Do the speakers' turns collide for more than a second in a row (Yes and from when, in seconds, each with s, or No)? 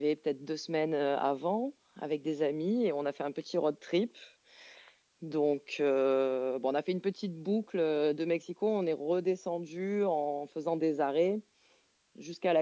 No